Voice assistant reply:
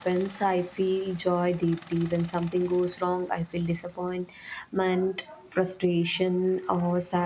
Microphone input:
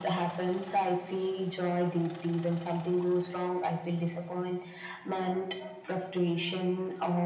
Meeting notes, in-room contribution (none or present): none